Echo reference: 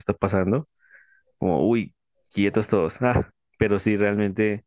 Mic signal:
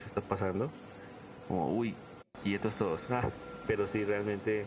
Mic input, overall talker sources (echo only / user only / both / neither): echo only